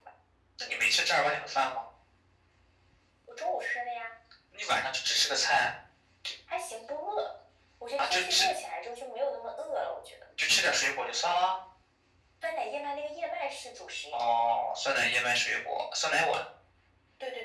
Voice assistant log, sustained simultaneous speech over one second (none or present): none